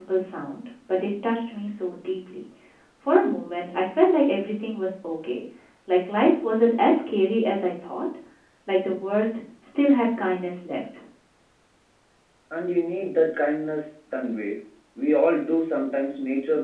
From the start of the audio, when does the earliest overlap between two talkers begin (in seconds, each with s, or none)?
none